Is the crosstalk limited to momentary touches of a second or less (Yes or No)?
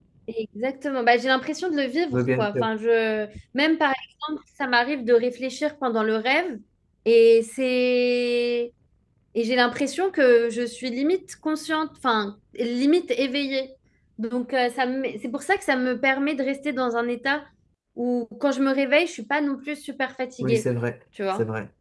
Yes